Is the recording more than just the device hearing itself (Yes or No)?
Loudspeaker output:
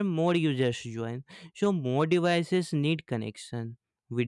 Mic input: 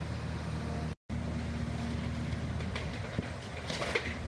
No